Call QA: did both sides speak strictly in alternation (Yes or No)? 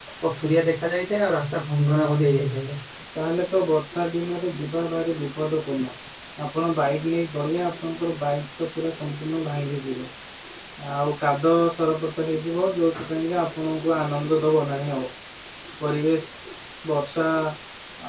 Yes